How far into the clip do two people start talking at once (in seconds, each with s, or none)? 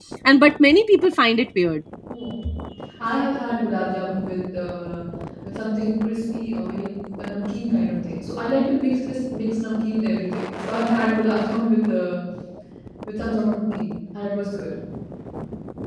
none